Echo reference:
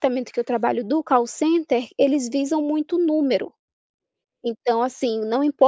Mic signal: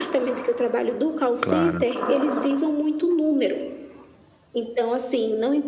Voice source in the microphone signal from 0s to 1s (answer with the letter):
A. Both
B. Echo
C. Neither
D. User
B